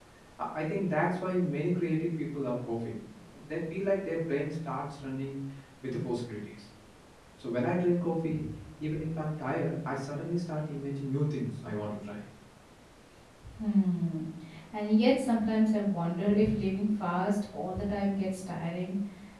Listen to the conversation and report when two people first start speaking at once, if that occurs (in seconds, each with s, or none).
none